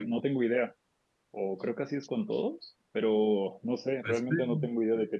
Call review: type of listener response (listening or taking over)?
listening